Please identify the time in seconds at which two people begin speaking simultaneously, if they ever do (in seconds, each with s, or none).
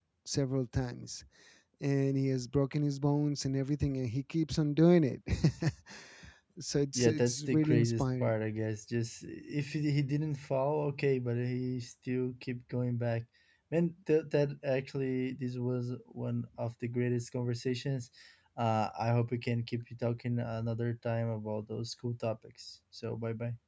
7.0 s